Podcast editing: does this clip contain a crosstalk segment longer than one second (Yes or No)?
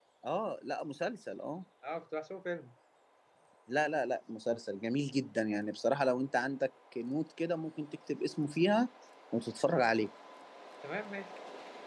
No